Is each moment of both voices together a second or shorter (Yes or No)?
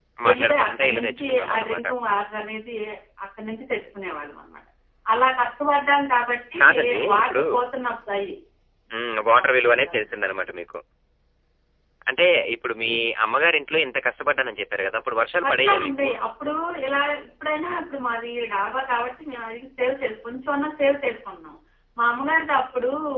No